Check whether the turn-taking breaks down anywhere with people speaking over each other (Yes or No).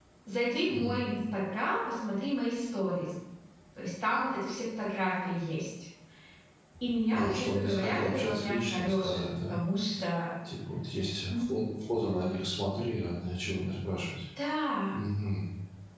Yes